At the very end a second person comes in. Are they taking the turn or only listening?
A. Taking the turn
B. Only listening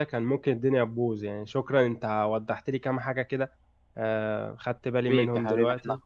A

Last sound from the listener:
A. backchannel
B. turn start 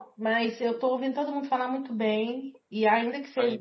A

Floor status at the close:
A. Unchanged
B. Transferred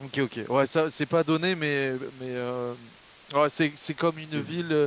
A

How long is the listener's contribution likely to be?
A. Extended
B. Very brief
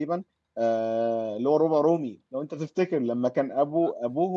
B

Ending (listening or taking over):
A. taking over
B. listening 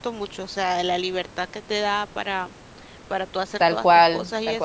A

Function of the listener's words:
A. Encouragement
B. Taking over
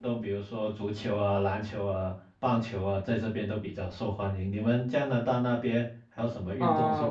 B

